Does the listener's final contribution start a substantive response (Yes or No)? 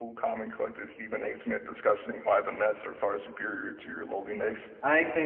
Yes